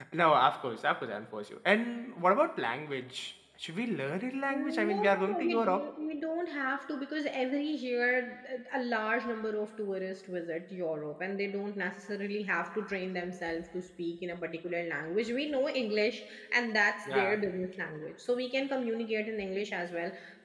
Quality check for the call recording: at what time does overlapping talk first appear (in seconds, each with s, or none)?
4.5 s